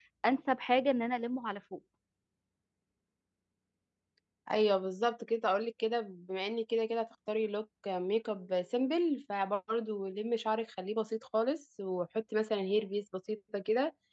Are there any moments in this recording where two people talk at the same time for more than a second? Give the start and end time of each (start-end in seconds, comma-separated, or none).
none